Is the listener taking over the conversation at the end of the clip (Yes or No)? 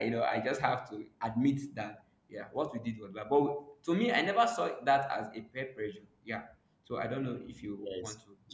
Yes